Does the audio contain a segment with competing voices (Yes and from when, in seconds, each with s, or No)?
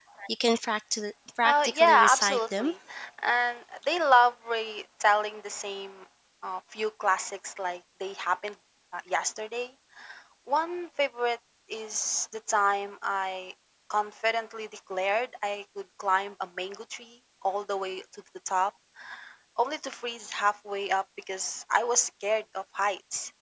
Yes, from 1.4 s